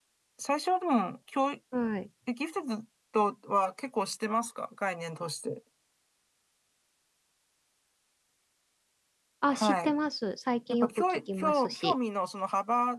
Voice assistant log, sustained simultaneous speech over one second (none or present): present